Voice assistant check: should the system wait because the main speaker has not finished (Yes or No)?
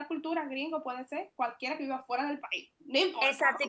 No